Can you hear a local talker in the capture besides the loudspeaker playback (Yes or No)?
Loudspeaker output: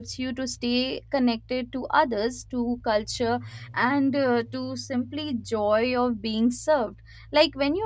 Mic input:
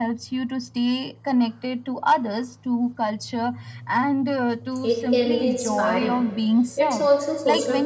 Yes